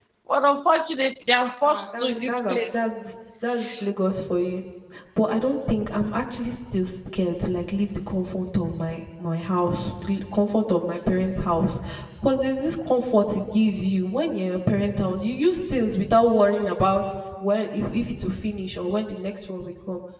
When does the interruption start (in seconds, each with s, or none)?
1.6 s